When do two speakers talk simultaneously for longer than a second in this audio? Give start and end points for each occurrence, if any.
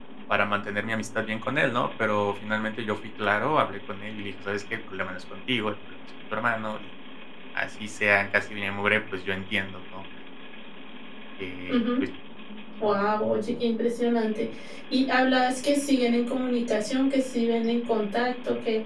none

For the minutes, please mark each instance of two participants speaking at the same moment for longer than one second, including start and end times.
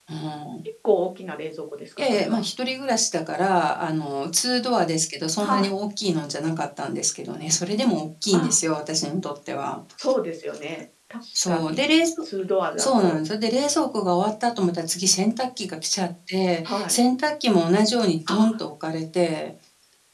none

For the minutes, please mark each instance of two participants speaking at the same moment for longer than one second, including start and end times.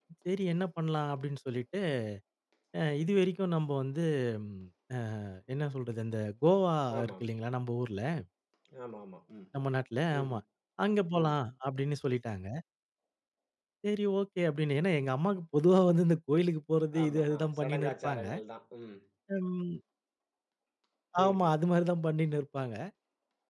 17.0-18.2

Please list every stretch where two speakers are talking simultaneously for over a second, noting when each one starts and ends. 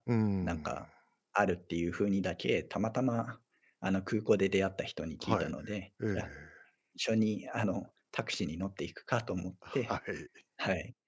none

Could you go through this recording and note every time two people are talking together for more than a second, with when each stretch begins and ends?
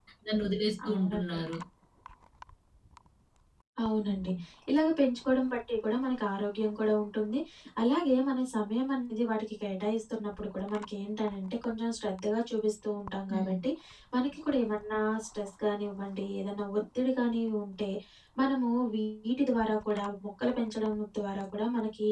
none

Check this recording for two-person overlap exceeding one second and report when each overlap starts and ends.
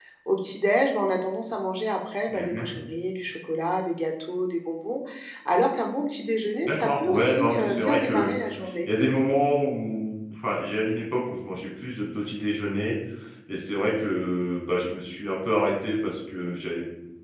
6.6-8.3

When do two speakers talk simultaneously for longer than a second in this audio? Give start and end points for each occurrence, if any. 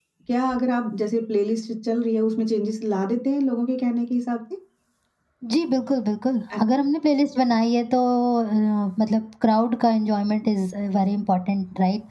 none

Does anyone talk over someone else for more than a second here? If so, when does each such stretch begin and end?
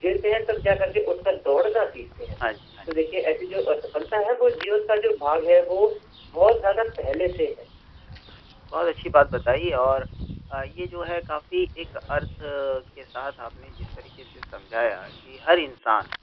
none

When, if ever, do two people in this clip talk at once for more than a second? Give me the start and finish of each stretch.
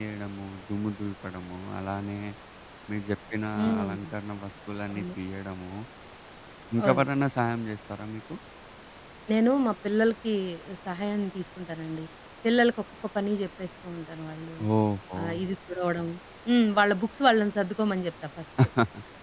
none

